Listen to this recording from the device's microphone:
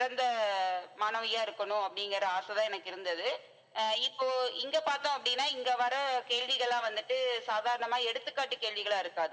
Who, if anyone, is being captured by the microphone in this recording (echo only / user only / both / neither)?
echo only